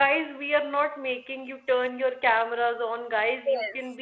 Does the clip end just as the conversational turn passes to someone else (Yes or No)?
No